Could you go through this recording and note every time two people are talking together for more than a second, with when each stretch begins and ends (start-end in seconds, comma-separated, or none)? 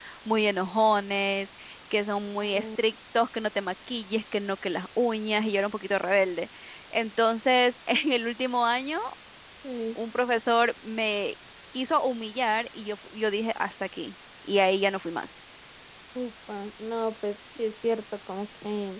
none